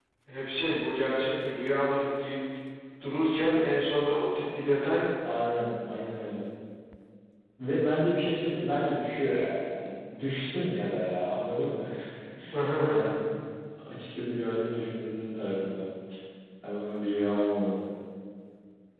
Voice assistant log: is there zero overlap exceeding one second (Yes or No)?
Yes